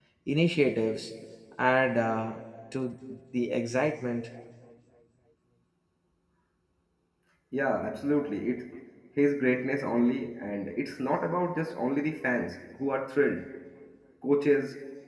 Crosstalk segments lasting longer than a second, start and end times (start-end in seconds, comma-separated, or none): none